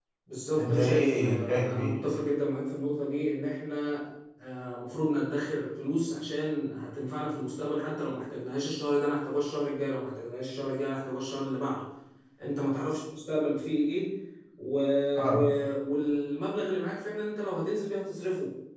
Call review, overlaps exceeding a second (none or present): present